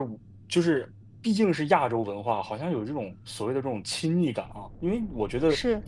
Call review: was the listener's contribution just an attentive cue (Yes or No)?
Yes